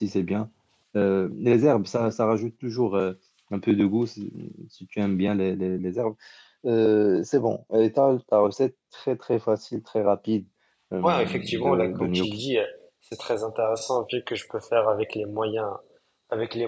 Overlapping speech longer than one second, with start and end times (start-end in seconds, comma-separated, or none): 11.0-12.3